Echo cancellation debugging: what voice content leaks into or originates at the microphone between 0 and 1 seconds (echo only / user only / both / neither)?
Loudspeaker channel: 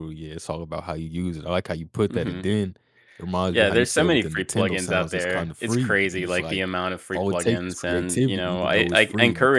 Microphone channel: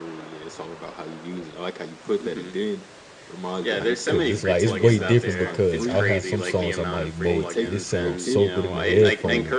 echo only